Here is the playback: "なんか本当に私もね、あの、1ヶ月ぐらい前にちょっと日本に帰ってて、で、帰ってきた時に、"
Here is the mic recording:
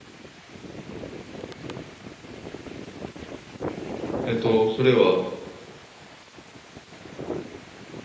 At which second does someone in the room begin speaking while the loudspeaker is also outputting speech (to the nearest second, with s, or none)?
4 s